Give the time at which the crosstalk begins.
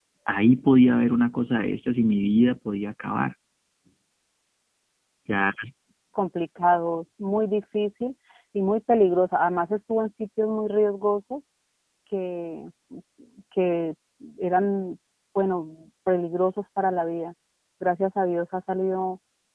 none

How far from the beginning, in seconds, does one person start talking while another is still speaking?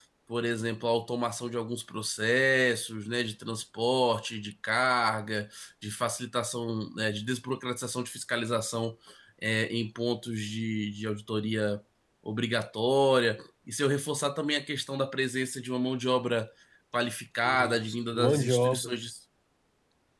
17.4 s

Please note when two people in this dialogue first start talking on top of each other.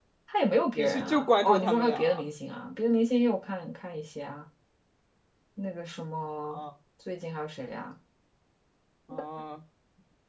0.8 s

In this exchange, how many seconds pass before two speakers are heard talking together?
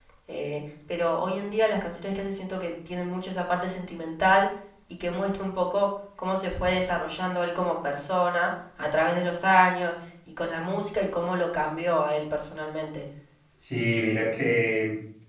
none

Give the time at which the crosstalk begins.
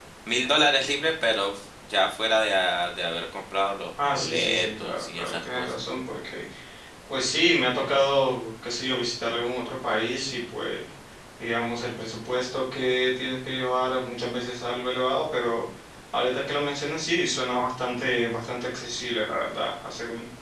4.0 s

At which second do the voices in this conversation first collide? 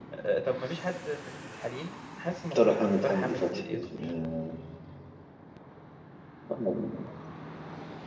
2.5 s

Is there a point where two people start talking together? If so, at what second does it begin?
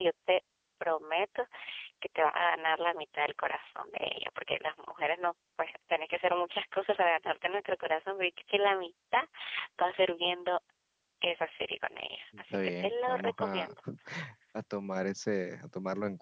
12.5 s

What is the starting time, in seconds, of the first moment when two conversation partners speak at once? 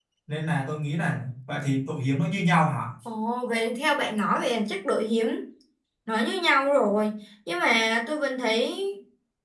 none

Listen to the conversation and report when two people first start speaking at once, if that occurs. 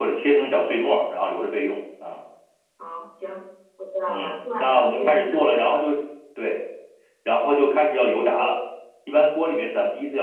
4.1 s

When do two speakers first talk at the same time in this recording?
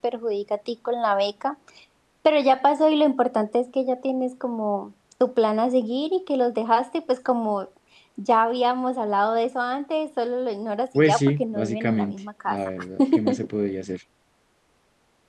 10.9 s

